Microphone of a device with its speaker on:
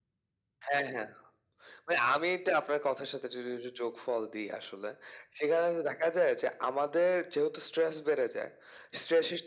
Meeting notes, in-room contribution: none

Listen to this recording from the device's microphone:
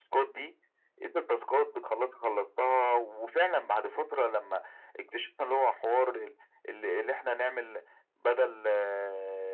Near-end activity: none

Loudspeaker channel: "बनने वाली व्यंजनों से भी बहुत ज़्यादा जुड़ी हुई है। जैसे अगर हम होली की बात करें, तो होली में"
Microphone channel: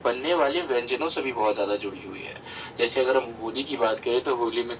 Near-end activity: none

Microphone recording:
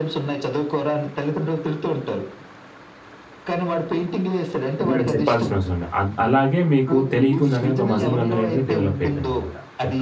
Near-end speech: present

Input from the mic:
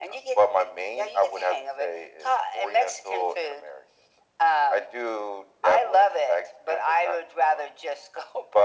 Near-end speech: none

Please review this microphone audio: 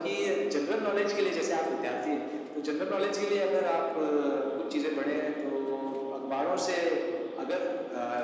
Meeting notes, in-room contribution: none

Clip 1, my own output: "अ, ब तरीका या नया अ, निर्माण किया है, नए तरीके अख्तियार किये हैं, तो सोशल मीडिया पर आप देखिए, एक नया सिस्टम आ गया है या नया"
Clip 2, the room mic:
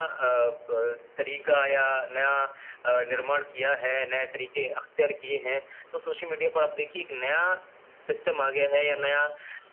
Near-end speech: none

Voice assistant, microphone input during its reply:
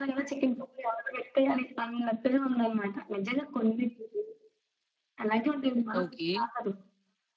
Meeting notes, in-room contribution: present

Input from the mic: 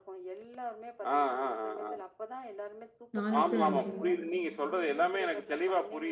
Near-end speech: present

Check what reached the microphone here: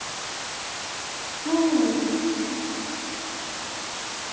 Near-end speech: present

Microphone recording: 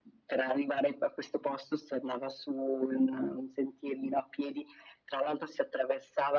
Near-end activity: none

